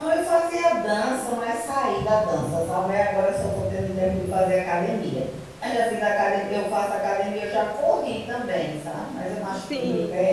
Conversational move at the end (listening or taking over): listening